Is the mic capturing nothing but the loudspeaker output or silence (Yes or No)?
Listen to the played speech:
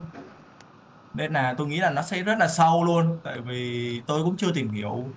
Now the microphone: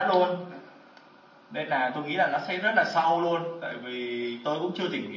Yes